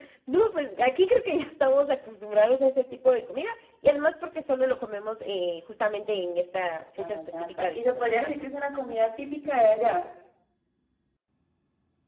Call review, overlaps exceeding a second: present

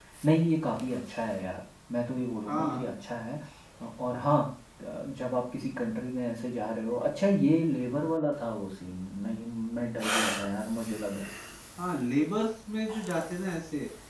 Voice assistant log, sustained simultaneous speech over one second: none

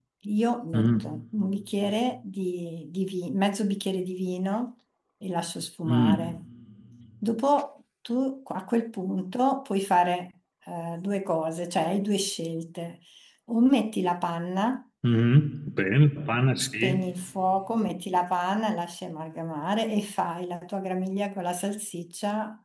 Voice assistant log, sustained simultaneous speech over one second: none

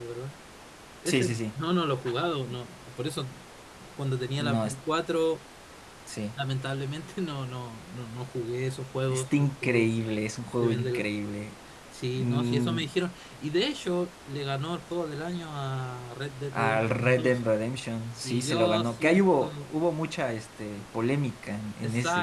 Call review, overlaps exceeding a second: present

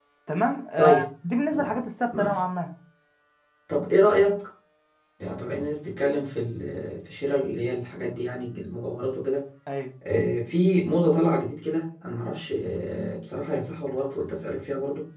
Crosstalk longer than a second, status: none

